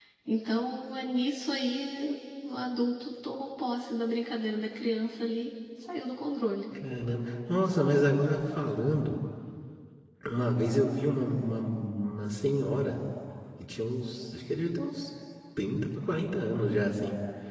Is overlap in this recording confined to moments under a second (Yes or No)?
Yes